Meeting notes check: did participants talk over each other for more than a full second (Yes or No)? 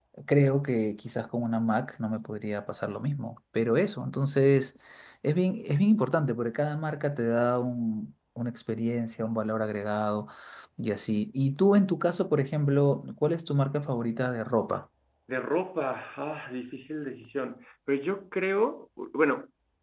No